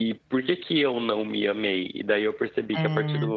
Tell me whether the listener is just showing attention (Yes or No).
Yes